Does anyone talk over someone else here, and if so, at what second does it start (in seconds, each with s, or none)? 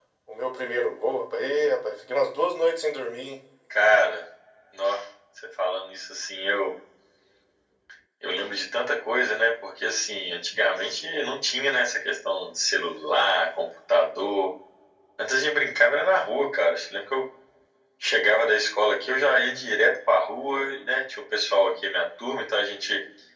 none